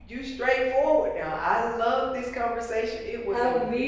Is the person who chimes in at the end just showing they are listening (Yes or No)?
No